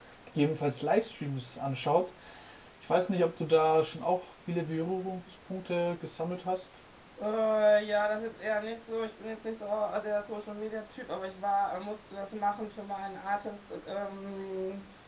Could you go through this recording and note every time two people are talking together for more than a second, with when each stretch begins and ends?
none

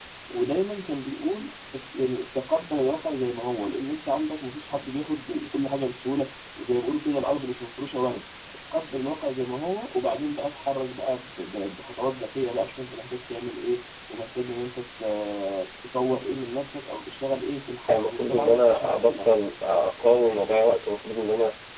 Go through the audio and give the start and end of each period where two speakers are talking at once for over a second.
17.9-19.3

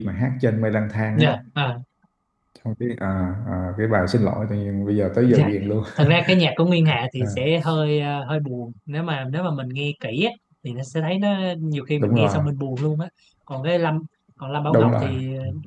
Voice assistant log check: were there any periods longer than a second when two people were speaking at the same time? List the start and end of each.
none

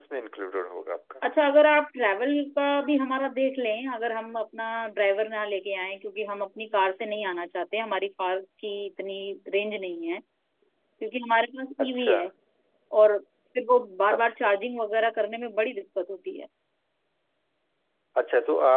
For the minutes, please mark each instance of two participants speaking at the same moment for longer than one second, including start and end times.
none

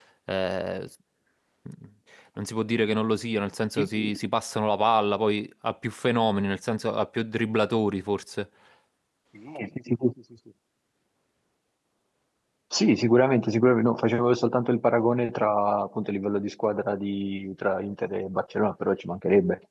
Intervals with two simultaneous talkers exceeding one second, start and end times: none

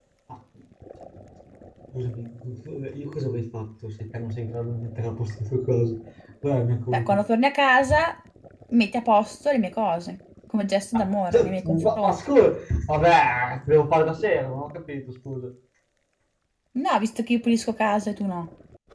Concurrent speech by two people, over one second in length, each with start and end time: 10.9-12.2

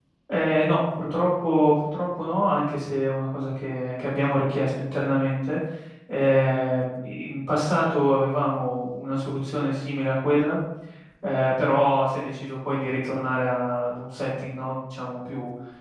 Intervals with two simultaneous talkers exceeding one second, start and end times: none

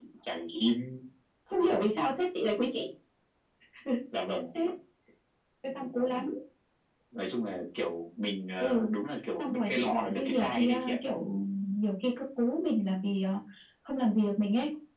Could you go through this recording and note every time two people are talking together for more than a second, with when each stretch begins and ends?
9.4-11.0

